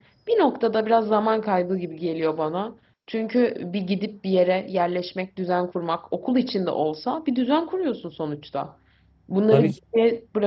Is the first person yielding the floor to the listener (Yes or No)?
No